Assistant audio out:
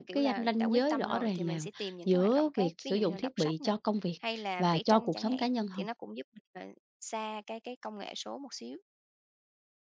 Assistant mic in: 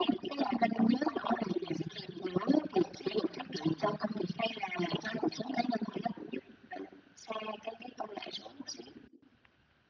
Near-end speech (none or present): none